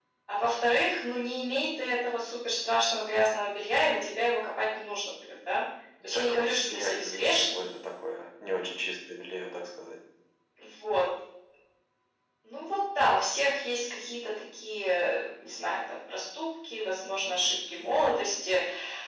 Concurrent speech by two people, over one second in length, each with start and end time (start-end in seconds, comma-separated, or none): 6.1-7.6